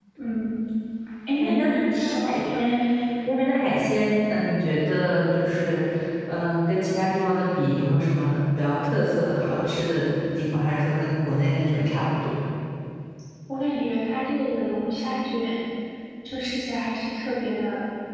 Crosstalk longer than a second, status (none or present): present